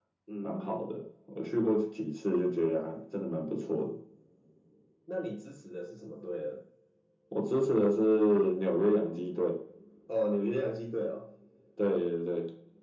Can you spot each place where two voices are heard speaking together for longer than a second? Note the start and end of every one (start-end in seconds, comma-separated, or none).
none